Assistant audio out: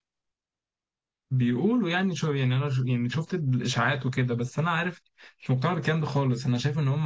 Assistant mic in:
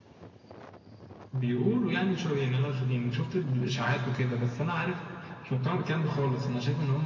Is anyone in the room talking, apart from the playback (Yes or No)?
No